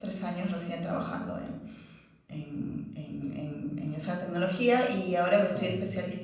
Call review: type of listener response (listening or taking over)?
listening